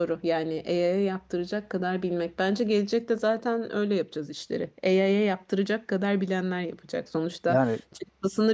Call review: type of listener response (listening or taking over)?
listening